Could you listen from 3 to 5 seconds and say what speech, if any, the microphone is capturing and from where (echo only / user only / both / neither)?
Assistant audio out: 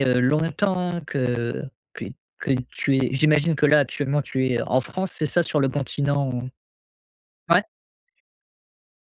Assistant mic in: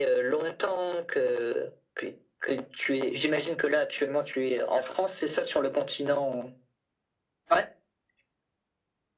echo only